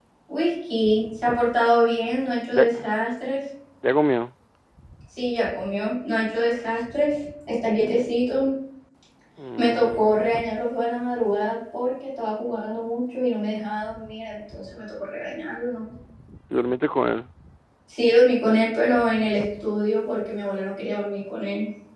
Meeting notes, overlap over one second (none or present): none